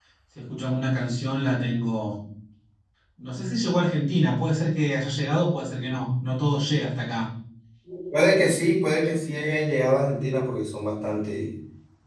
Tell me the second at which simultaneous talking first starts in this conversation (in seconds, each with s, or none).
none